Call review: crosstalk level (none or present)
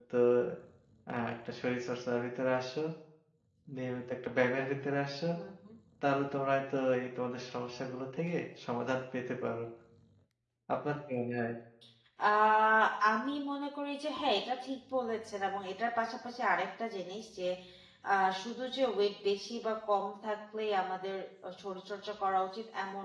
none